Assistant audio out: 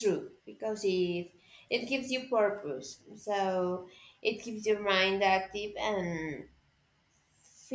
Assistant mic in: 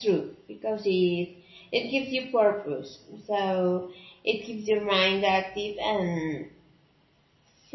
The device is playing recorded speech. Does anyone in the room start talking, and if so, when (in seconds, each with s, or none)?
none